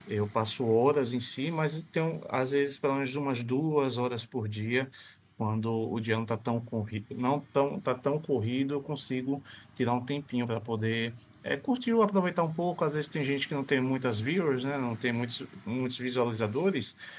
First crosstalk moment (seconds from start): none

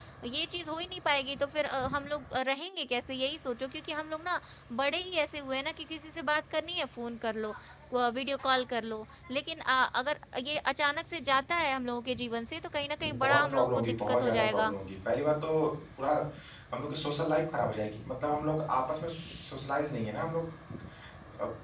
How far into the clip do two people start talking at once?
13.2 s

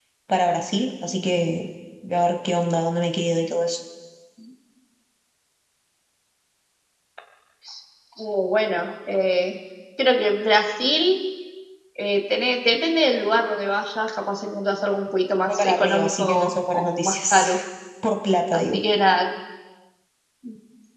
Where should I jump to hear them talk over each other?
15.5 s

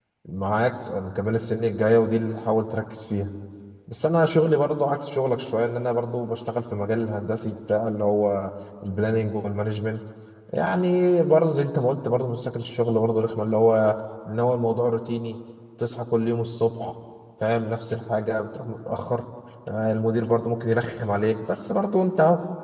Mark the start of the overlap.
none

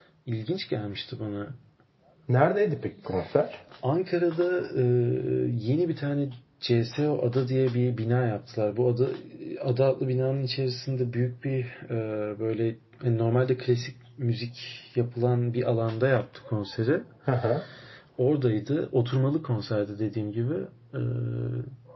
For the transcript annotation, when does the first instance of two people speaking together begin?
none

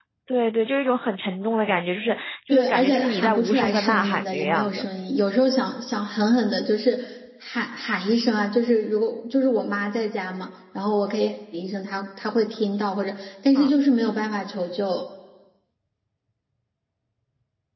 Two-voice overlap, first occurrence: 2.5 s

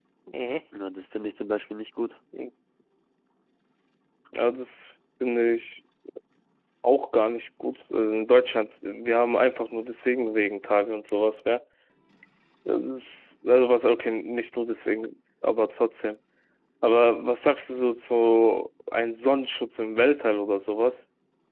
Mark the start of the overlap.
none

